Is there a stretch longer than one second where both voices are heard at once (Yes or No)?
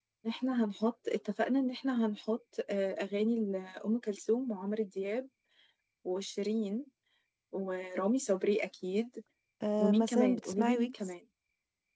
Yes